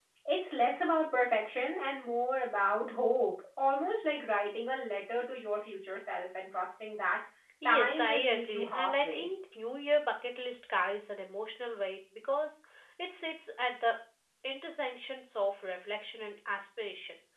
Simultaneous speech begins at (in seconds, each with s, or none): 7.7 s